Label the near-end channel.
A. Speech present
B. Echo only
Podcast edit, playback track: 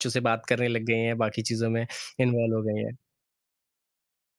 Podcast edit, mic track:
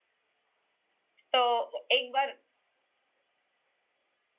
A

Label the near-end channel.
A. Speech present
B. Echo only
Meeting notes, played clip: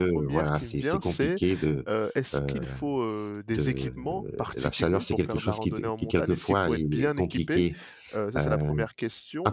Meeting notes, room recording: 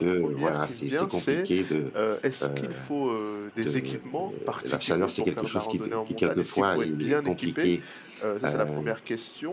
B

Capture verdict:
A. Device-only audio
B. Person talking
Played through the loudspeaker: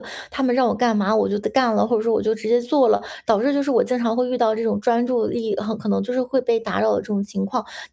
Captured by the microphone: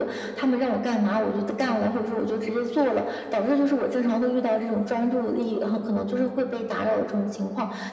A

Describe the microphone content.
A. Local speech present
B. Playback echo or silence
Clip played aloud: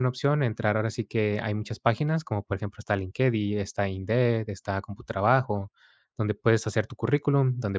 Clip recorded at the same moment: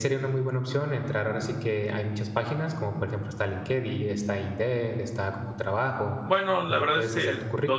A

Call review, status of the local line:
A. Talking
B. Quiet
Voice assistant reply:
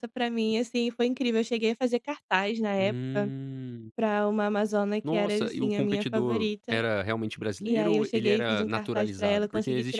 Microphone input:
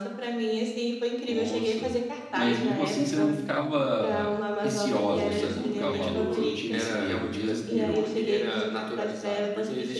A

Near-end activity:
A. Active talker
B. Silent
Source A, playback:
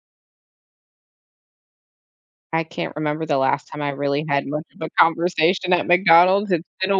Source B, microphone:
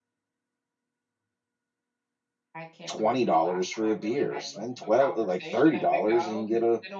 A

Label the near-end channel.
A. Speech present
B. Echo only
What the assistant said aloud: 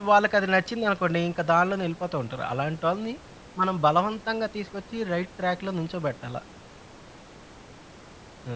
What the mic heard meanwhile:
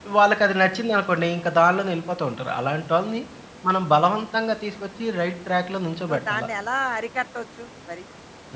A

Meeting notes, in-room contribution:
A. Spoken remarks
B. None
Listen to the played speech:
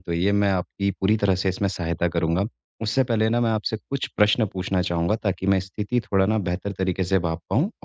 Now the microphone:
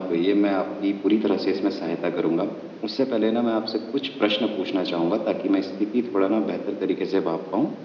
B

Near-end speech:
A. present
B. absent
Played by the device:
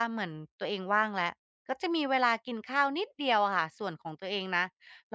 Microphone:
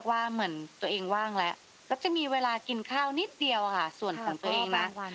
A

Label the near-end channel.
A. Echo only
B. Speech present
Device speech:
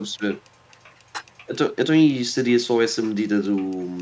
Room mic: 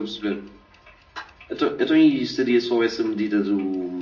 A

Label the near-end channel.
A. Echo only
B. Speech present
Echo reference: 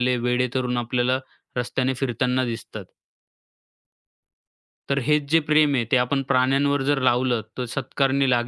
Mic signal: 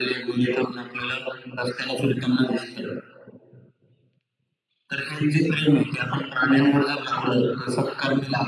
A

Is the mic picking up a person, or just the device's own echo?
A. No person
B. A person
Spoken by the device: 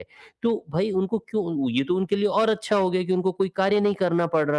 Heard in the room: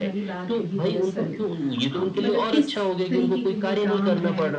B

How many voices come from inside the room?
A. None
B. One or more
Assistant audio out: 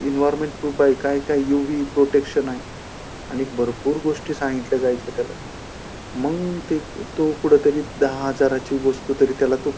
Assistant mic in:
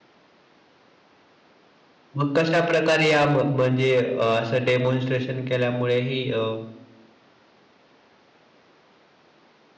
B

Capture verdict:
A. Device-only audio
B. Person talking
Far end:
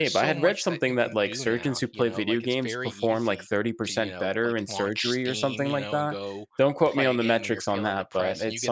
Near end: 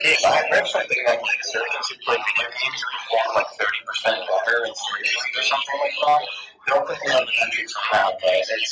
A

